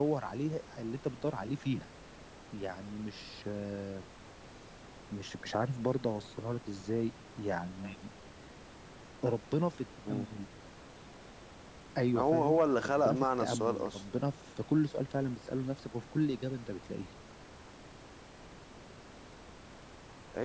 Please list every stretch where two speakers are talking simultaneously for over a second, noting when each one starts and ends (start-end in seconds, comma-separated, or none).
12.2-14.0